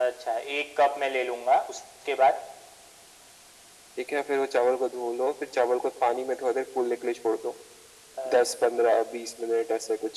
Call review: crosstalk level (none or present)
none